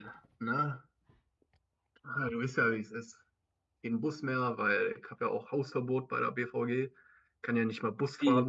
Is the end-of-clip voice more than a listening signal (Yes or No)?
Yes